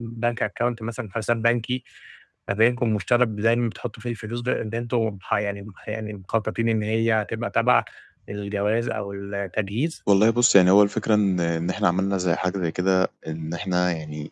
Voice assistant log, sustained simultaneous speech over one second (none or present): none